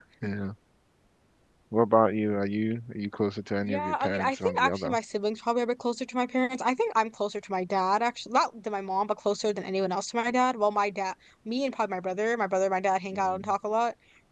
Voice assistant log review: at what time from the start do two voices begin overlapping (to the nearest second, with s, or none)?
4 s